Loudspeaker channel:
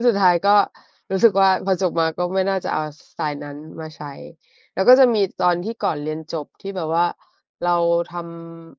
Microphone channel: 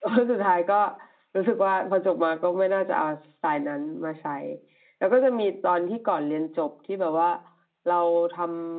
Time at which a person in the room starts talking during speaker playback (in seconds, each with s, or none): none